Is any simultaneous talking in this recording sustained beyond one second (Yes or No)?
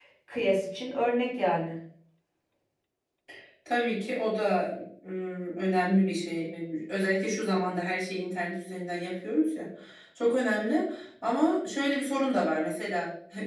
No